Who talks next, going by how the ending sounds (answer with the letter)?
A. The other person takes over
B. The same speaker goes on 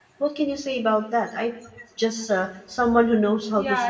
A